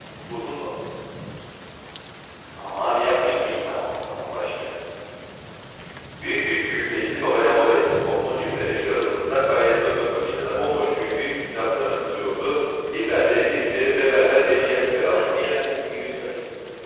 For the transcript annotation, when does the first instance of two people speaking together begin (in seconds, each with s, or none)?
14.1 s